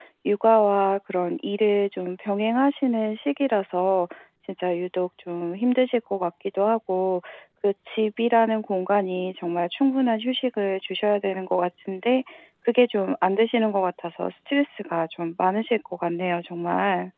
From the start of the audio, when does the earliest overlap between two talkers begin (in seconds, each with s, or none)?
none